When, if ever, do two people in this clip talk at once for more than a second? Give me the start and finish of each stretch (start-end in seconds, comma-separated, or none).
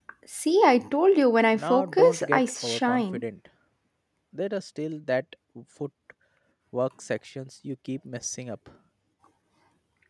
1.5-3.2